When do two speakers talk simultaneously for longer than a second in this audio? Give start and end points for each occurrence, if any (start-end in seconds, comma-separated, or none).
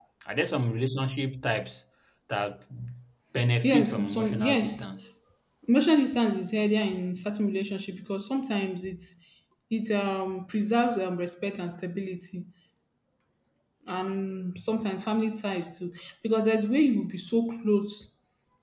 3.6-4.9